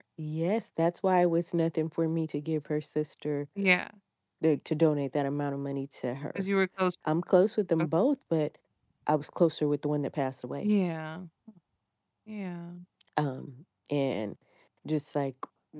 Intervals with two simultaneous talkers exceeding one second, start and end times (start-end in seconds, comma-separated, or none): none